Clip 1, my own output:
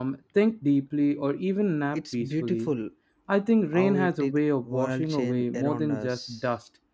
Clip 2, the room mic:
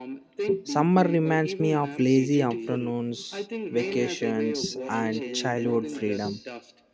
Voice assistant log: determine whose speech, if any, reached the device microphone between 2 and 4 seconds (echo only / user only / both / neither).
both